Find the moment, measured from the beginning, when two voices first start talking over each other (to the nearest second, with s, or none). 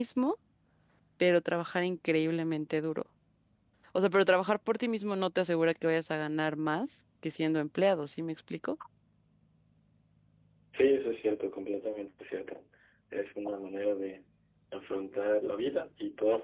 none